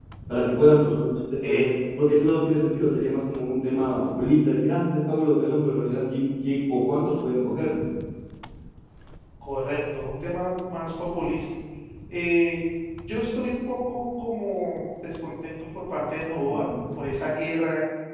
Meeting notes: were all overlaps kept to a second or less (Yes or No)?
Yes